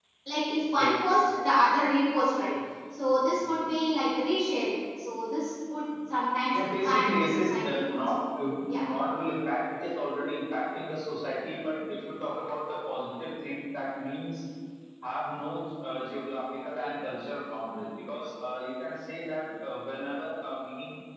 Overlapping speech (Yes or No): Yes